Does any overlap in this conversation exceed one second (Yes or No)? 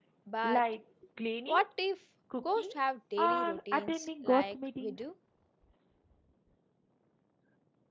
Yes